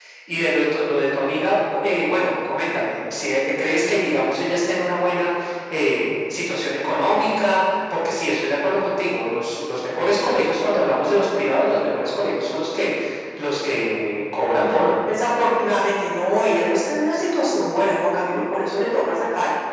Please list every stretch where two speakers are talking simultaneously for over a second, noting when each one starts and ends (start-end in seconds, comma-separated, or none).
none